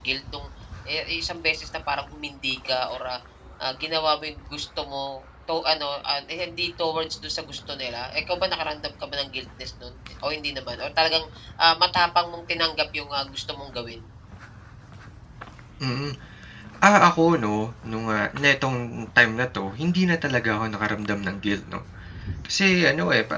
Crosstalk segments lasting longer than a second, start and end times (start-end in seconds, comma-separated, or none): none